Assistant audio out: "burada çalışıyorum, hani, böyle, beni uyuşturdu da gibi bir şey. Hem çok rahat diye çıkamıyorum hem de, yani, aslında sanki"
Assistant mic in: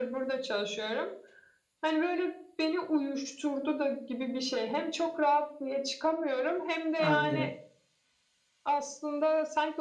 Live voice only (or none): Anlıyorum.